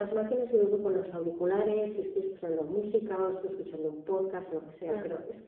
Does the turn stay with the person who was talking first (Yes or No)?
Yes